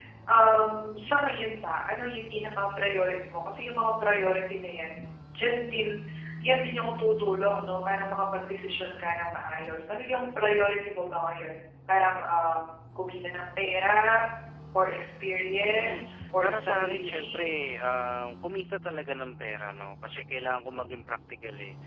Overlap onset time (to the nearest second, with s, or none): 16 s